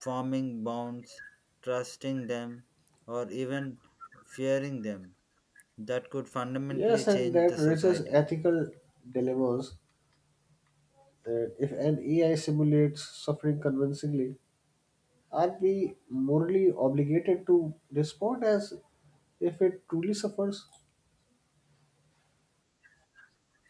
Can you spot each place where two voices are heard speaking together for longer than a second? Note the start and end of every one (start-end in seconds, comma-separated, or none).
6.7-8.2